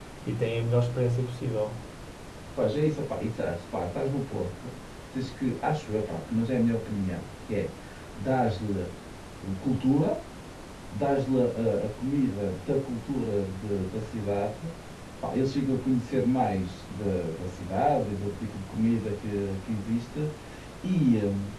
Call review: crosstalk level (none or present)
none